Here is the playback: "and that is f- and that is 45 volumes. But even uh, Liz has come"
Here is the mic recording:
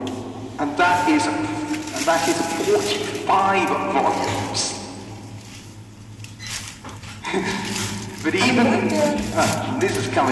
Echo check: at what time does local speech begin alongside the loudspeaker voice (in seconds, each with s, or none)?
8.4 s